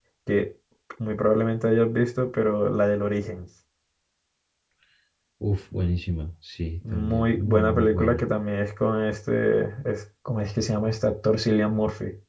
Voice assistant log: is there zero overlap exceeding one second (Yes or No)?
No